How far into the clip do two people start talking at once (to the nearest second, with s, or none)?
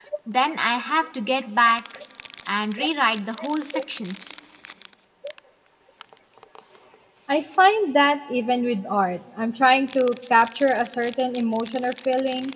none